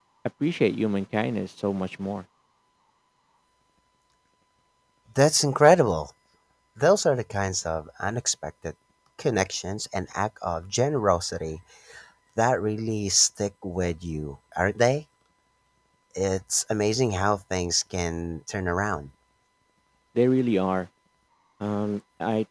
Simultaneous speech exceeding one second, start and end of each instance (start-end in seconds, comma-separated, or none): none